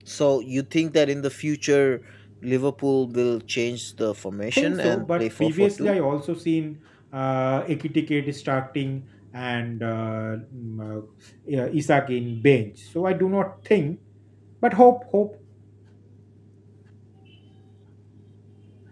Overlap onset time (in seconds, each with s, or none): 4.5 s